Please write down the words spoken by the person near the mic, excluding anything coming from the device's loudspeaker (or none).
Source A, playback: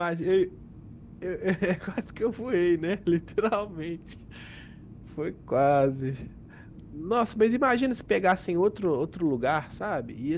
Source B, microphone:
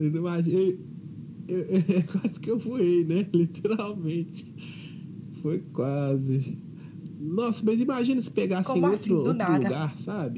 Como assim, do nada?